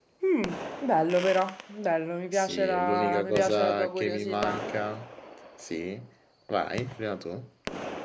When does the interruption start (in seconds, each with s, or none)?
2.3 s